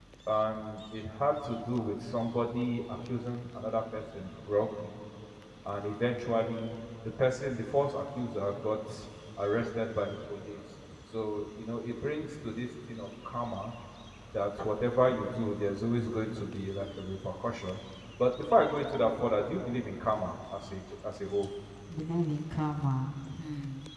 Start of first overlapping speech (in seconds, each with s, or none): none